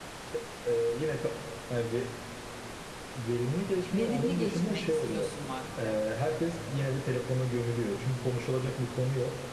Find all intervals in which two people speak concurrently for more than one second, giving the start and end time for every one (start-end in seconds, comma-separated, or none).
3.9-5.3